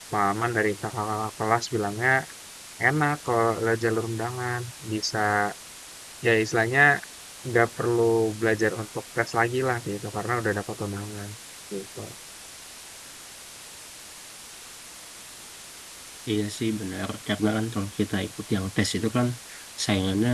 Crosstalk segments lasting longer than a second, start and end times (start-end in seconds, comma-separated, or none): none